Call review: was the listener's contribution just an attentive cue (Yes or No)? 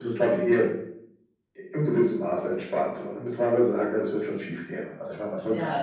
No